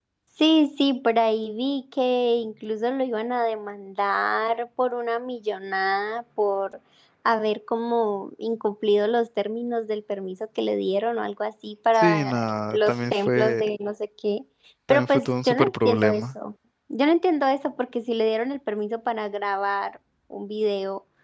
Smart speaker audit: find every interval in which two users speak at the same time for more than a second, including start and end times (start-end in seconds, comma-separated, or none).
12.0-13.6, 14.9-16.2